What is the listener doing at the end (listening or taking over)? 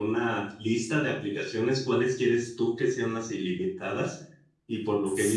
listening